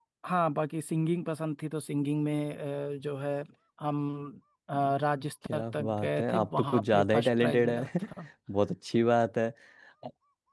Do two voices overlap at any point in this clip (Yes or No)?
Yes